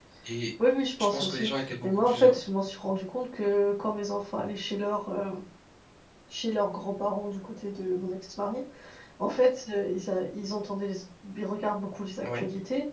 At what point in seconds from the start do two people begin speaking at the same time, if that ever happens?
1.0 s

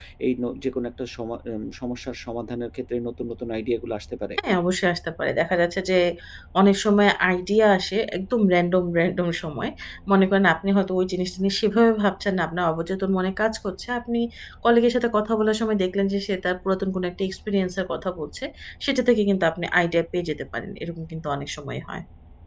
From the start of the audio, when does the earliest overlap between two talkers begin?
none

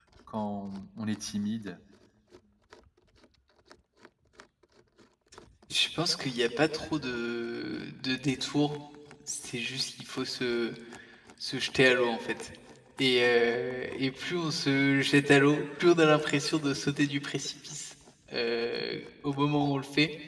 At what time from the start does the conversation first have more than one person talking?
none

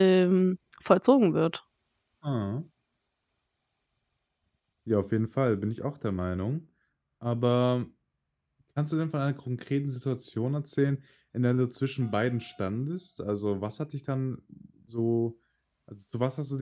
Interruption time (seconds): none

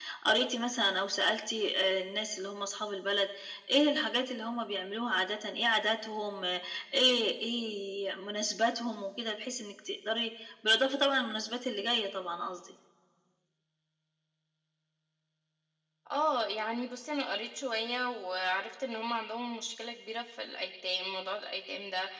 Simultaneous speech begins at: none

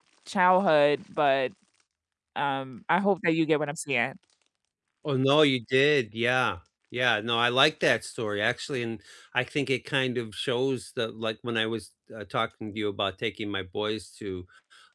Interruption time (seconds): none

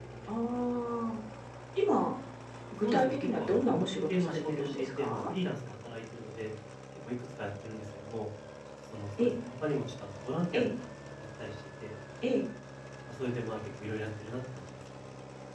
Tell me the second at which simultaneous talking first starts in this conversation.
2.8 s

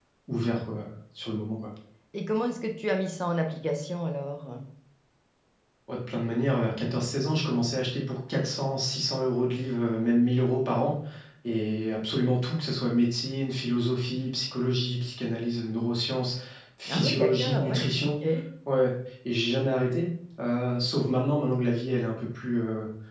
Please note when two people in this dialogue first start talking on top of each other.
16.9 s

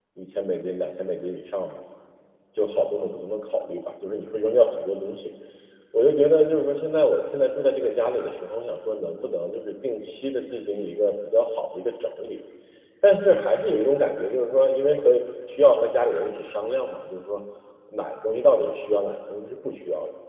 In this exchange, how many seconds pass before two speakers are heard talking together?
none

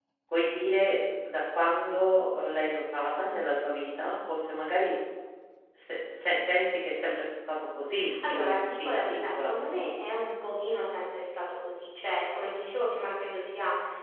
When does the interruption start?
8.0 s

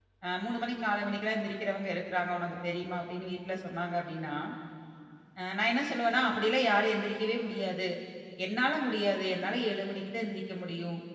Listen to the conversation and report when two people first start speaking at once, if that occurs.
none

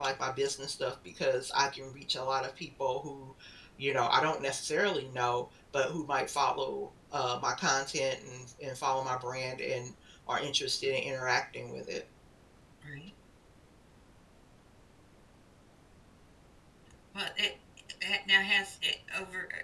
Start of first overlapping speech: none

